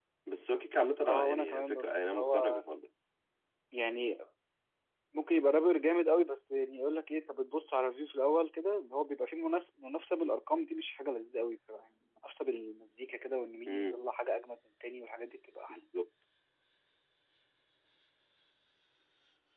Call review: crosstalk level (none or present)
present